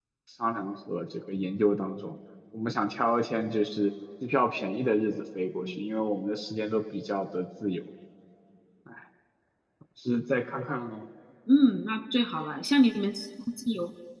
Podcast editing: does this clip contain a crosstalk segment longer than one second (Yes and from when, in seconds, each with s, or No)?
No